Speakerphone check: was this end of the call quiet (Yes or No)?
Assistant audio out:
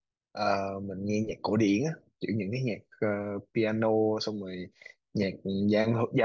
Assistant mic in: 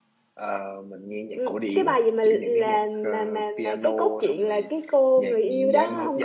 No